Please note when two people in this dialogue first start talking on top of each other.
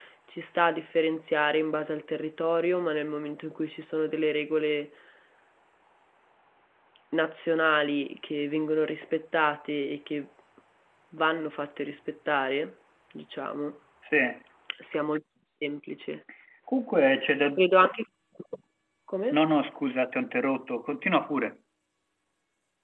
none

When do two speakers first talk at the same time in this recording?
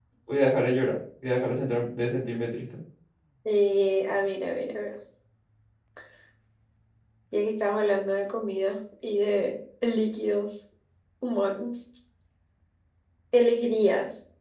none

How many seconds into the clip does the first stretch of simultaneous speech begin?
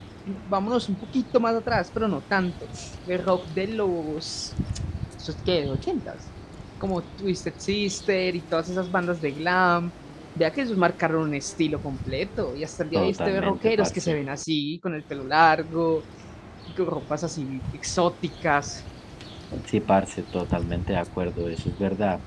12.9 s

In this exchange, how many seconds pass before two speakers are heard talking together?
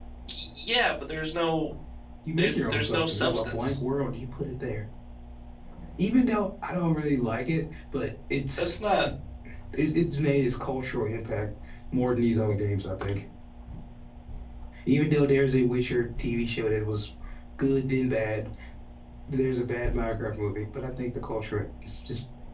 2.4 s

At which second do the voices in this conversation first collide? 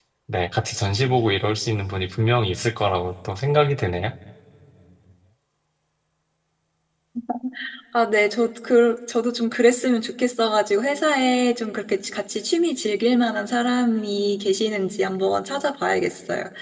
none

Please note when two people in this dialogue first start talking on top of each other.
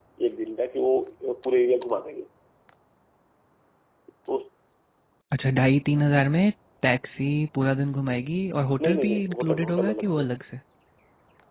8.8 s

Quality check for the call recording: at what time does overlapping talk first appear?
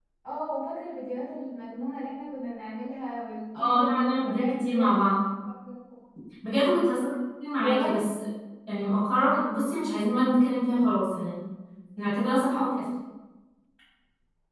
3.6 s

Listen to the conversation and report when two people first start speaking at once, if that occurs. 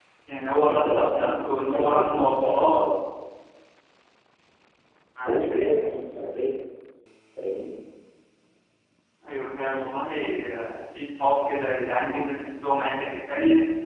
0.7 s

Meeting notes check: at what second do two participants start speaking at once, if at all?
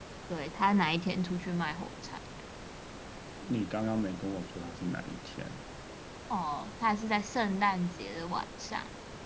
none

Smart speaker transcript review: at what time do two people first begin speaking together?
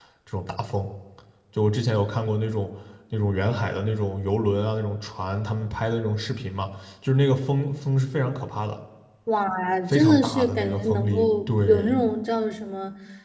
9.9 s

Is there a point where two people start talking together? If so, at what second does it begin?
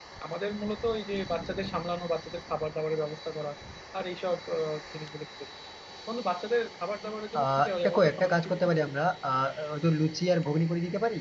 7.3 s

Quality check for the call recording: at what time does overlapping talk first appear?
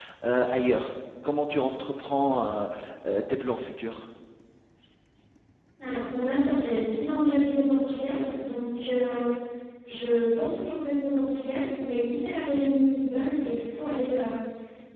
none

